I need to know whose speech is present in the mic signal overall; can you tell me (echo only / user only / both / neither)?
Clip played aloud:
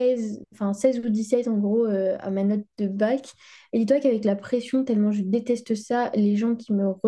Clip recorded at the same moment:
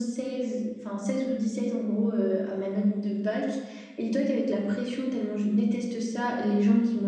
echo only